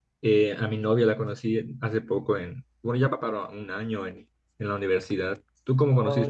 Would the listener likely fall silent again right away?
No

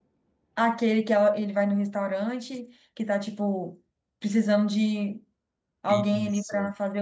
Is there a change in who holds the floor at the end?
Yes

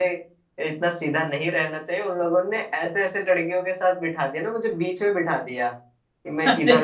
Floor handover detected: No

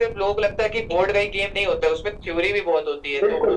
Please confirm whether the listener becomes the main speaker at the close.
Yes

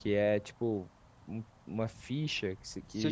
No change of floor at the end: No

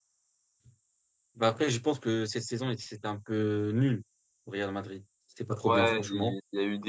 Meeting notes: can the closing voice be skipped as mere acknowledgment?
No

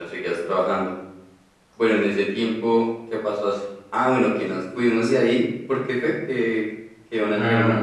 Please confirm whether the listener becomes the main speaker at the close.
Yes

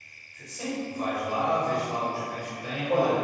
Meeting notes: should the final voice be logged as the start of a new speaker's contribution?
No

